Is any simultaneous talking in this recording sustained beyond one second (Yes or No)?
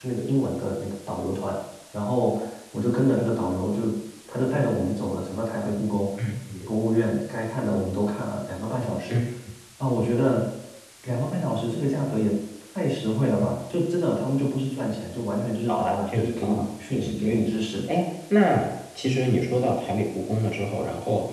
Yes